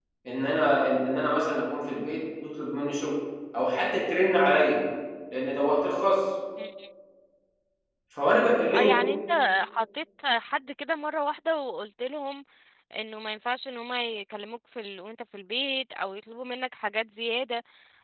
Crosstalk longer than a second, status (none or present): none